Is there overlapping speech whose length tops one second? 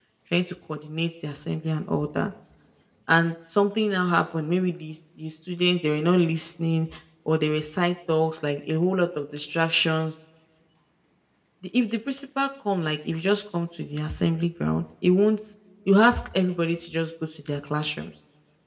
No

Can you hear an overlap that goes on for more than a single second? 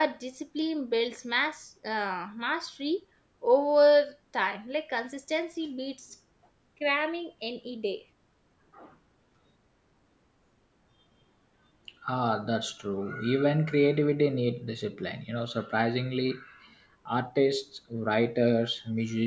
No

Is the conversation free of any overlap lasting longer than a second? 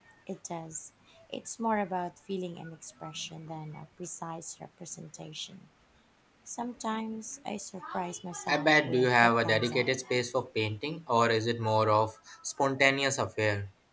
No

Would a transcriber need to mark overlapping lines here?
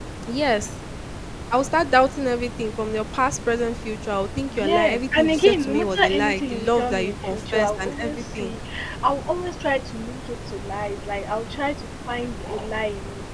Yes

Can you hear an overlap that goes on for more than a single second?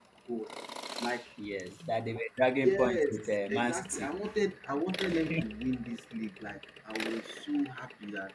Yes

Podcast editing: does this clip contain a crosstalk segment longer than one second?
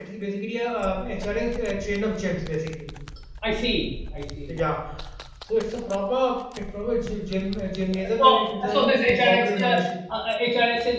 Yes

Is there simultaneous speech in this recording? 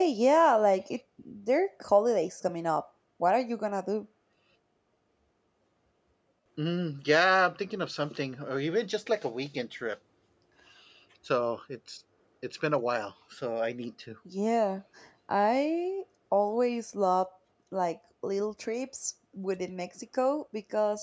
No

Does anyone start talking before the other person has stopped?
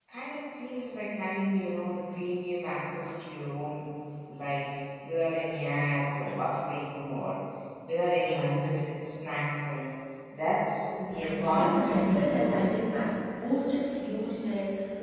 Yes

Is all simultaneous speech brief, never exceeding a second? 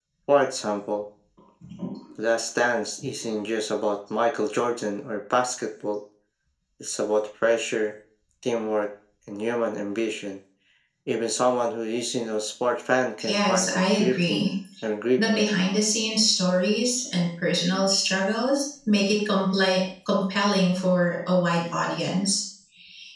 No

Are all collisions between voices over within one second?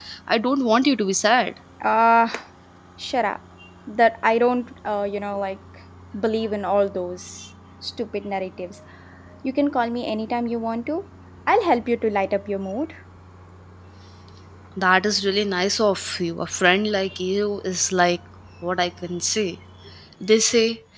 Yes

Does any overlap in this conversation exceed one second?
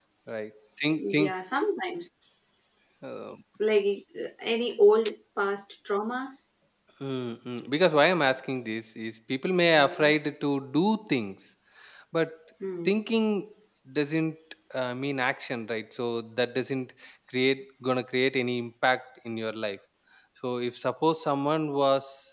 No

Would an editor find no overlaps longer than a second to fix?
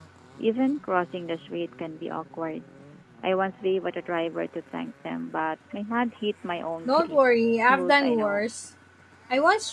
No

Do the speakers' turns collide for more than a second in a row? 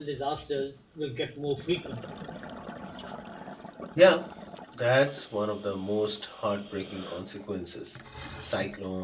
No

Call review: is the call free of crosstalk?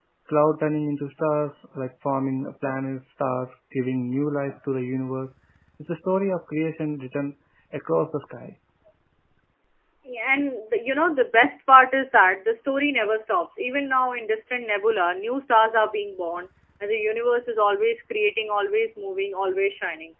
Yes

